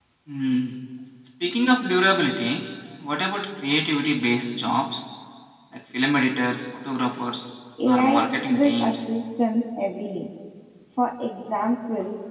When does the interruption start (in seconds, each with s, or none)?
7.8 s